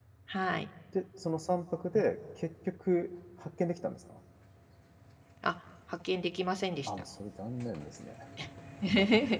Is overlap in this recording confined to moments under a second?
Yes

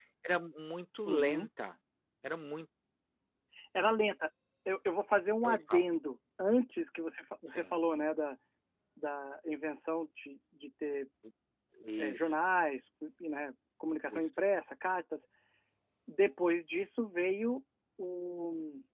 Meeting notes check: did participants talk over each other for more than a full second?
No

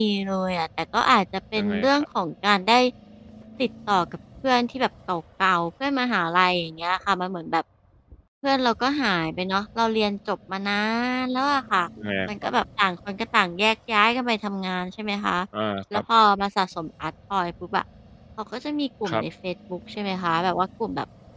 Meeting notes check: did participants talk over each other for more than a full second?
No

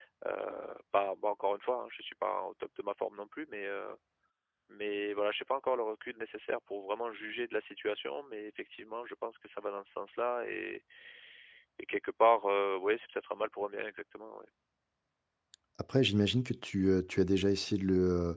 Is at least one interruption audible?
No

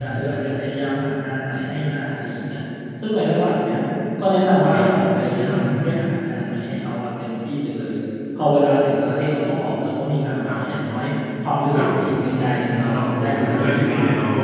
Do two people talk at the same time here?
Yes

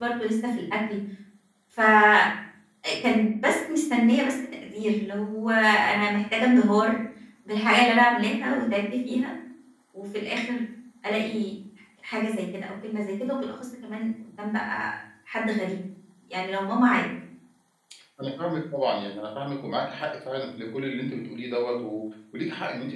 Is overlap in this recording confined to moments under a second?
Yes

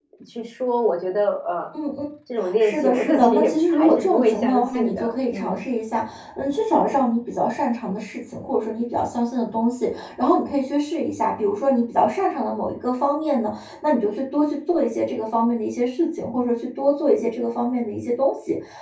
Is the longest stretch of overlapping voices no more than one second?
No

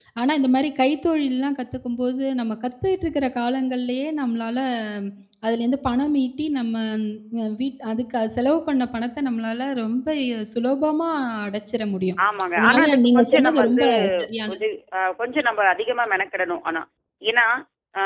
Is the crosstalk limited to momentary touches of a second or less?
No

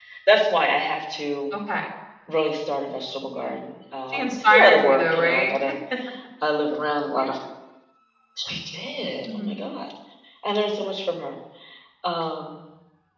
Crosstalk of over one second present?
Yes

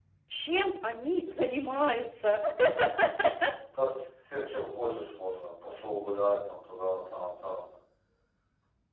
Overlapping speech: No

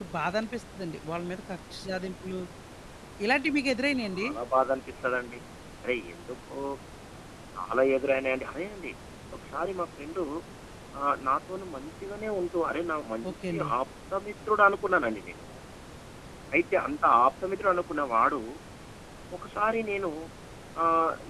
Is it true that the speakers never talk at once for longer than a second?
Yes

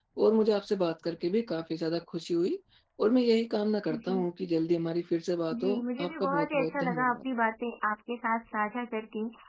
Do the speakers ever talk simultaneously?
Yes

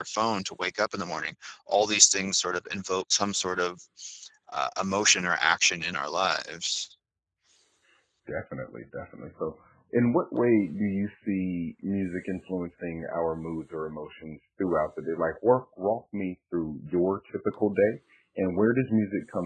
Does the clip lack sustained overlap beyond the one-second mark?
Yes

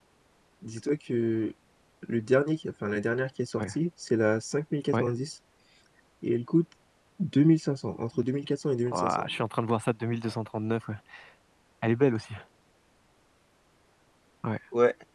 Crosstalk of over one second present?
No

